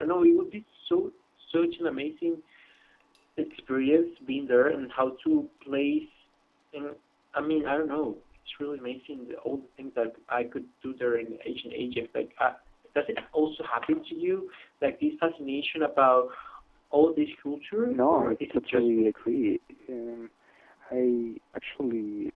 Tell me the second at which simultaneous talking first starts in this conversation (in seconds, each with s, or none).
17.9 s